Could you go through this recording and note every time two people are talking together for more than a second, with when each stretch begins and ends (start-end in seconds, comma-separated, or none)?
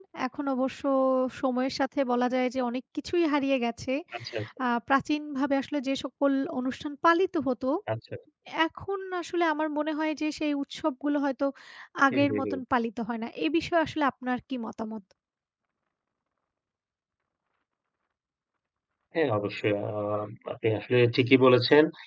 none